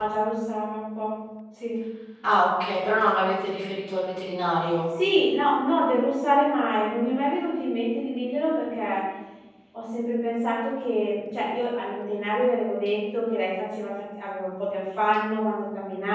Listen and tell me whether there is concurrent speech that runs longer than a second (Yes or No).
No